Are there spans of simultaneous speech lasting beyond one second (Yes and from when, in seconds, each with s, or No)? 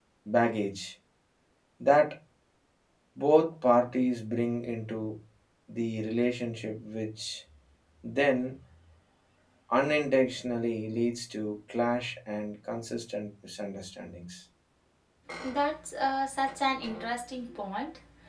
No